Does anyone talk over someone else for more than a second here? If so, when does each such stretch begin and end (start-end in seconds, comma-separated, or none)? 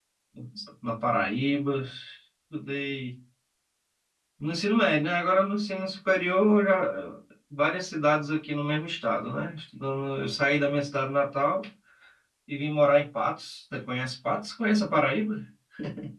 none